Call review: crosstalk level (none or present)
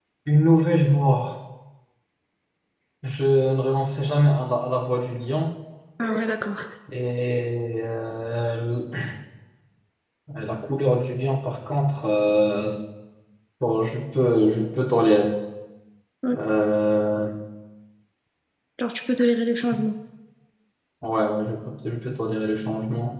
none